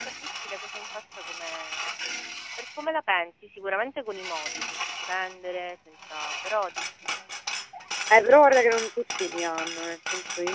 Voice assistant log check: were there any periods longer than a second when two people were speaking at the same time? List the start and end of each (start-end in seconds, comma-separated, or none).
none